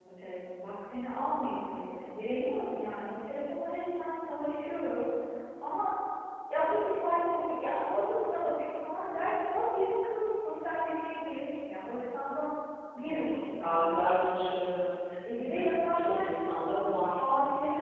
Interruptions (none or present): present